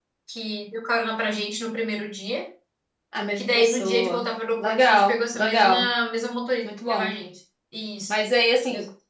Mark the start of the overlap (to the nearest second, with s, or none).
3 s